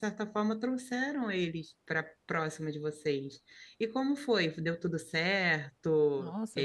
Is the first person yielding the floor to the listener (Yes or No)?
Yes